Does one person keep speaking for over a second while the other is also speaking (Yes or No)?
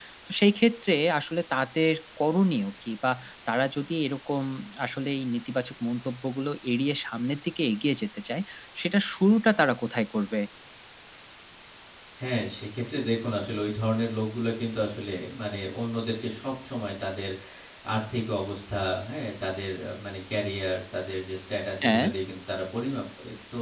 No